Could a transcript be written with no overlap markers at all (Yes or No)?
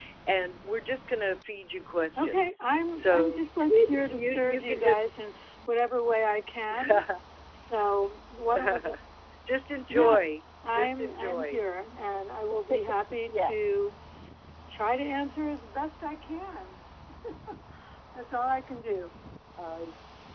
No